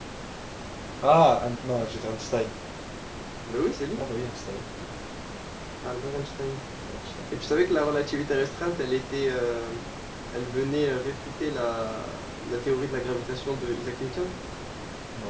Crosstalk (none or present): none